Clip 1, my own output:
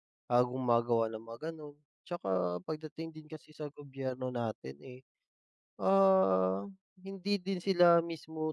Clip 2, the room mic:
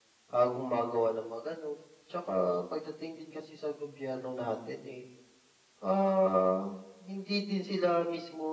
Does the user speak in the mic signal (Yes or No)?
No